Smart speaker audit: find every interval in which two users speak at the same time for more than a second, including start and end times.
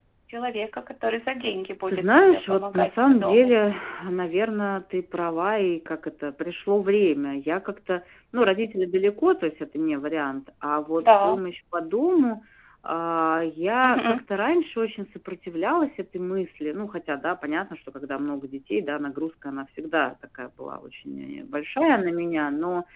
1.9-3.5

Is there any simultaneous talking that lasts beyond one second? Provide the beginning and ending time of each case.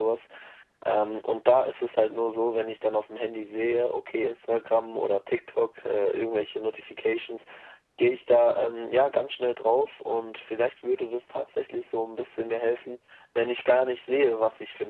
none

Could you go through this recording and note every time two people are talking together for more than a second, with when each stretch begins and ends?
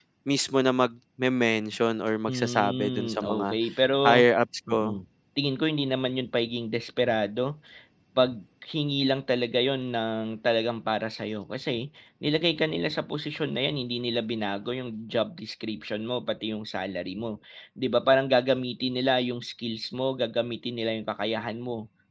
2.3-3.5

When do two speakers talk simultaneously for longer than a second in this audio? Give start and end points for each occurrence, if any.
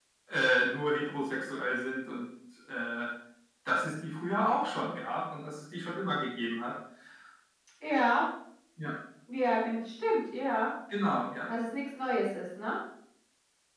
none

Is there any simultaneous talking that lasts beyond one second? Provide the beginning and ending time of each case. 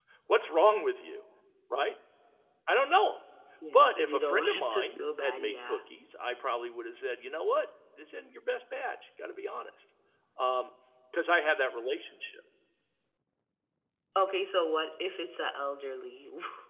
3.7-5.8

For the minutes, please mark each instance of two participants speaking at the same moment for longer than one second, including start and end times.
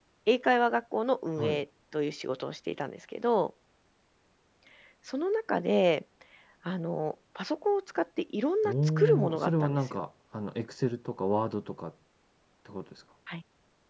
8.6-10.0

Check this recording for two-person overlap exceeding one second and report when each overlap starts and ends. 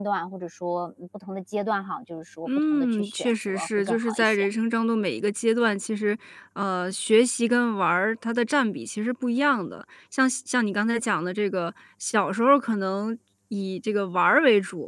2.5-4.5

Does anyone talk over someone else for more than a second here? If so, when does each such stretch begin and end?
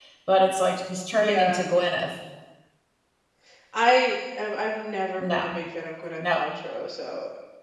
none

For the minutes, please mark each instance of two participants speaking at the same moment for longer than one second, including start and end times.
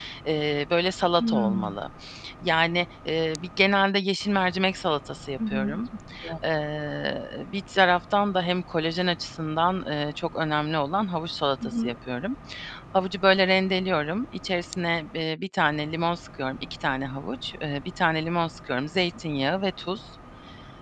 none

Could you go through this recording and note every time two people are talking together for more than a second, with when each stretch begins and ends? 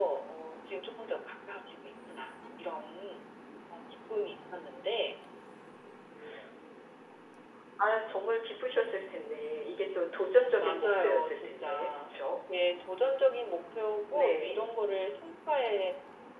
10.6-12.1

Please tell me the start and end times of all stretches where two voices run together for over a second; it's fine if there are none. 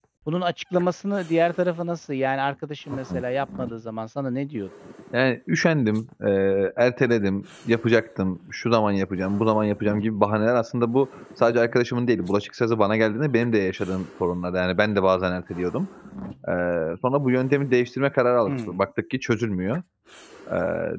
none

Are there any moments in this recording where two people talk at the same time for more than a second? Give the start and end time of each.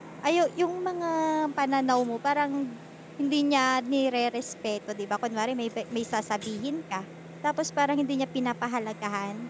none

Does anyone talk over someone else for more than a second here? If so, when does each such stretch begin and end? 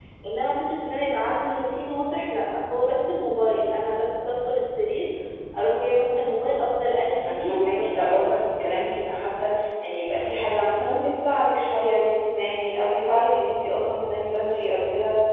6.9-8.3

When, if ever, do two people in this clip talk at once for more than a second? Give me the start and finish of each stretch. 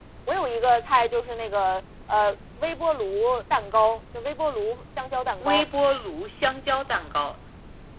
none

